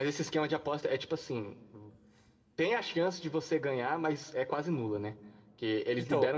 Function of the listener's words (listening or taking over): listening